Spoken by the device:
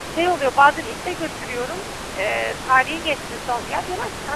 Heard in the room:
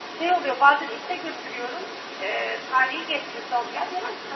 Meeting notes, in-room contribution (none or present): none